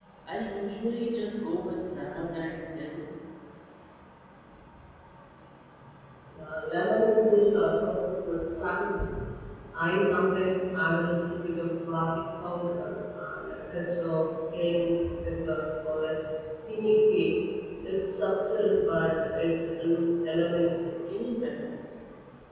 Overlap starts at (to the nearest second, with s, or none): none